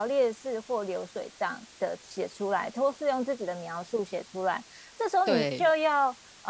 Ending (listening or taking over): listening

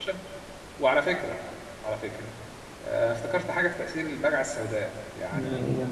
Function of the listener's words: listening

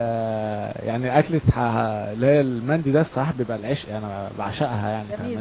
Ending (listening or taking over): taking over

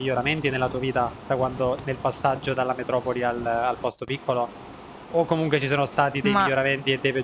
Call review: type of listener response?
listening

